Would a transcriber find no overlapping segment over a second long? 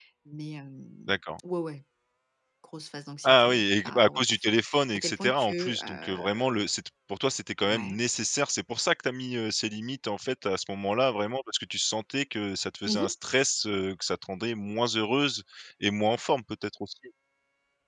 No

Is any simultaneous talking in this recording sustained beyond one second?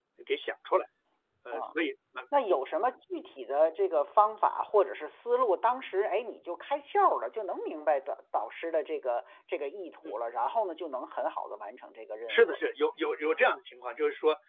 No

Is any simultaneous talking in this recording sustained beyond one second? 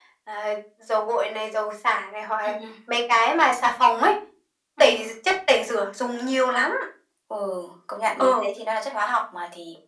No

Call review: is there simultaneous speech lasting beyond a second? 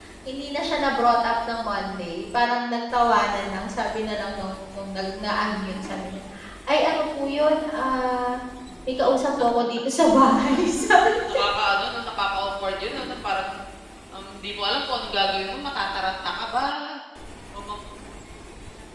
No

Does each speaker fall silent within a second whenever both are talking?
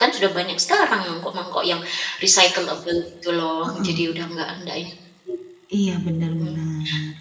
Yes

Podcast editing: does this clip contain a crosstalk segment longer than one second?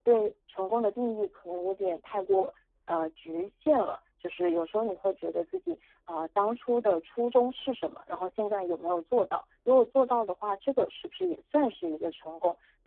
No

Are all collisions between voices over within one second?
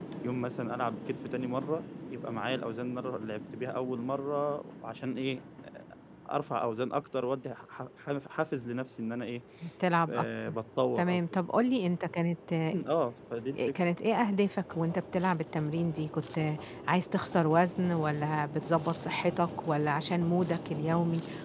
Yes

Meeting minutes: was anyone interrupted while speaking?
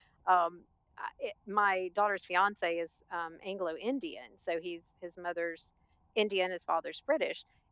No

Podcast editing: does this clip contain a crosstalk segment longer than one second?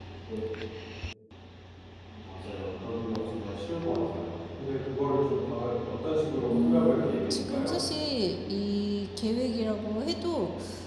Yes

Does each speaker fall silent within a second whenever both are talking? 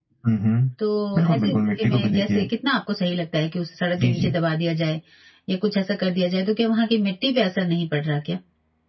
No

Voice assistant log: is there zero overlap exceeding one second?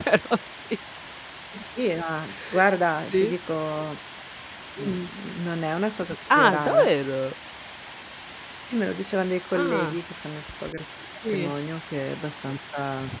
Yes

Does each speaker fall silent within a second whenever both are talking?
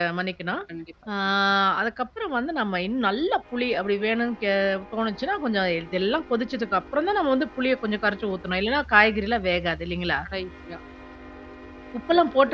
Yes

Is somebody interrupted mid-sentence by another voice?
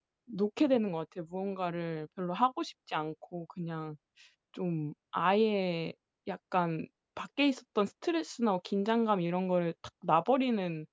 No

